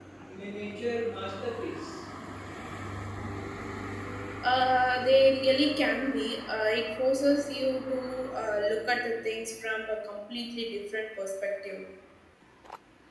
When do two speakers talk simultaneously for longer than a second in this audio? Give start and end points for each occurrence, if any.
none

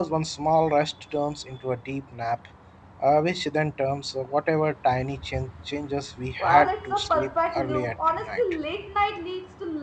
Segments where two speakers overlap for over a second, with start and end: 6.4-8.4

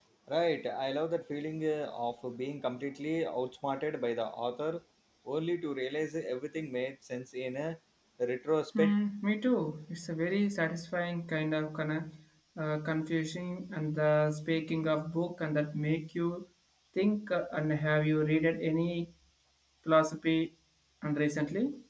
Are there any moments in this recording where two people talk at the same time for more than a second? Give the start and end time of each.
none

